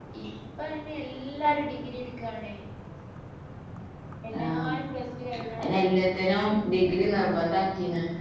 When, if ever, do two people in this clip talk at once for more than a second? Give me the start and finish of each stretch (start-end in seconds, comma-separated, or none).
none